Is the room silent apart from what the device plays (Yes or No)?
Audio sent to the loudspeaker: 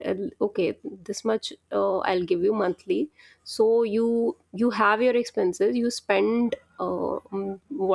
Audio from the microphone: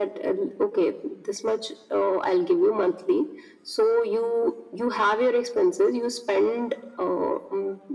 Yes